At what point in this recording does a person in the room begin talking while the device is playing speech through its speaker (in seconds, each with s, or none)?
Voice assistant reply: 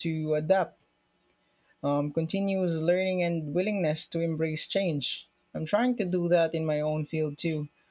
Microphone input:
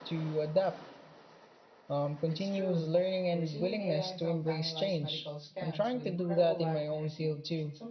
2.3 s